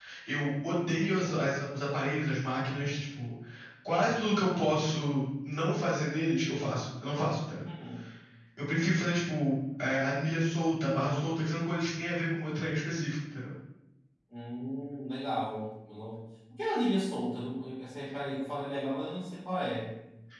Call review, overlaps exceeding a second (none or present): none